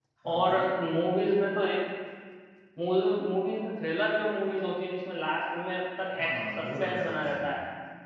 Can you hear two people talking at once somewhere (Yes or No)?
Yes